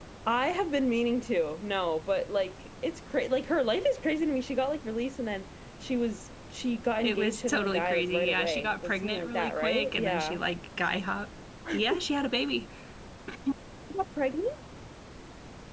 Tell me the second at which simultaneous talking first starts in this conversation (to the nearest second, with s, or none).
7 s